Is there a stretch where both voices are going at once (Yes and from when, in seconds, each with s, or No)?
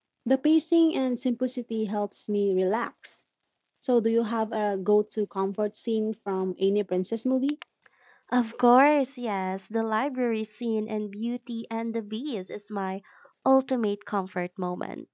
No